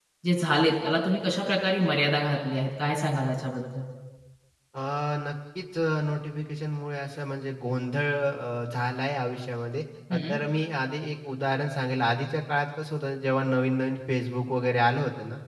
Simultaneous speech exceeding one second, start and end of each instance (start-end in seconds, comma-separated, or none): none